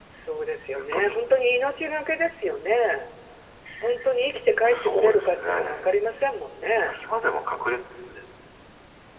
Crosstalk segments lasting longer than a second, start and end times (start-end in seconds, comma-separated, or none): 4.6-5.9